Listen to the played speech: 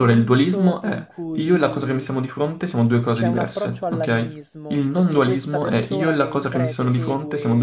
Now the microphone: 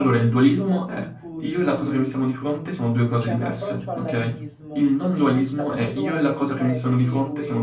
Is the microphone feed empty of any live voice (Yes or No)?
Yes